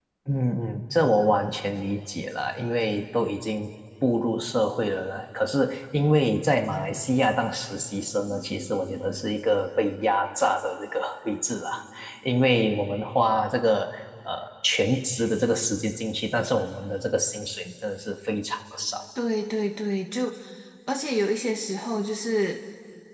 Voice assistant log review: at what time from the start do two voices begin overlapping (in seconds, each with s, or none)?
none